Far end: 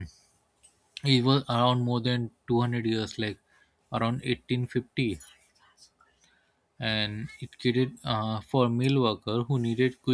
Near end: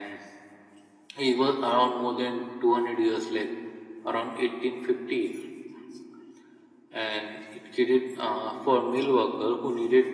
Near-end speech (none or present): none